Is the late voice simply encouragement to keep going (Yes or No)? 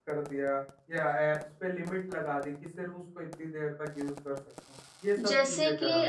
No